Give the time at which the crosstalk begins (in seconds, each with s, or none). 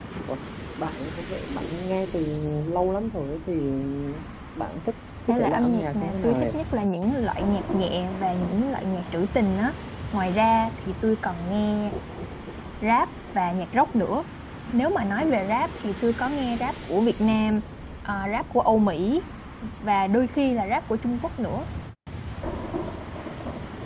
5.3 s